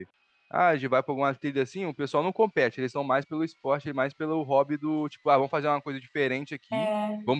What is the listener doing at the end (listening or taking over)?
listening